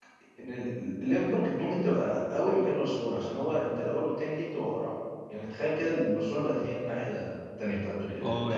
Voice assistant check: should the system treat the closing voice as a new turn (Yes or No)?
Yes